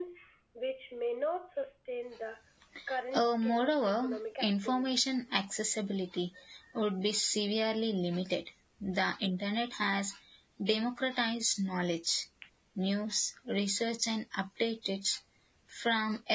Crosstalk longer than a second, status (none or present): present